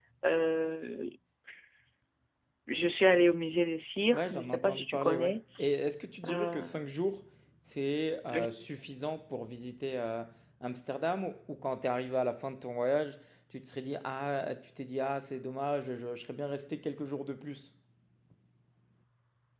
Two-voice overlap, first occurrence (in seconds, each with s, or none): 4.1 s